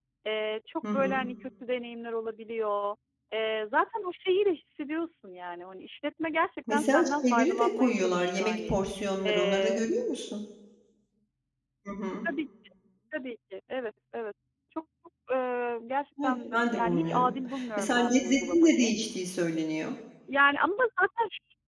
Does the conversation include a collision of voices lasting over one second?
Yes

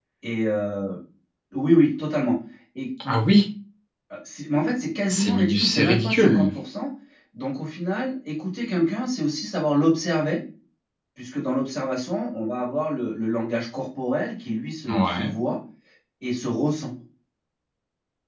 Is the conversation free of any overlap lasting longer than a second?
No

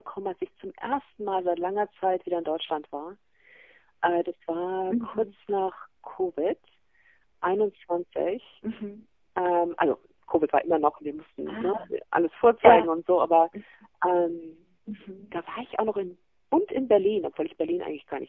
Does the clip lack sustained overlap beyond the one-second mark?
Yes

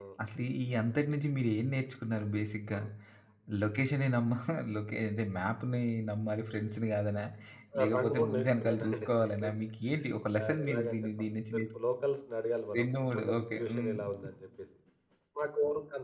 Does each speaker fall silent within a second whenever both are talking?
No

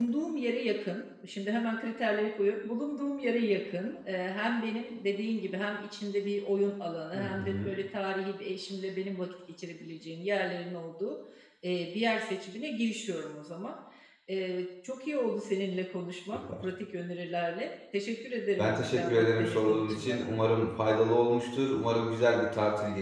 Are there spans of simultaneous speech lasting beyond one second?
Yes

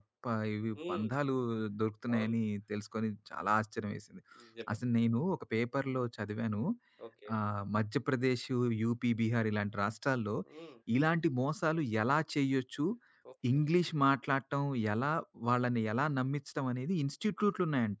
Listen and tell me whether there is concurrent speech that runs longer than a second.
No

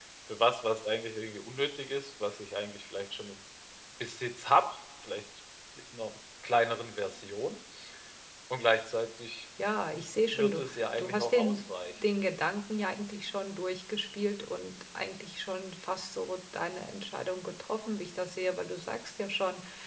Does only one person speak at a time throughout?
No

